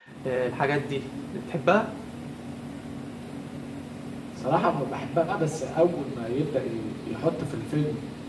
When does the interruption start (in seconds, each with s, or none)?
none